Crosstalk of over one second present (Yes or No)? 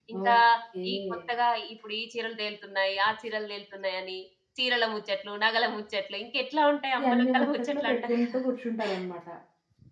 Yes